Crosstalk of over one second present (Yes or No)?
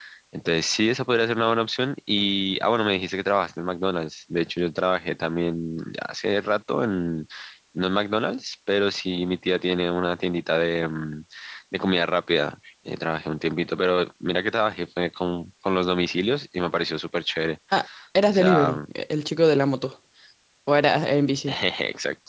No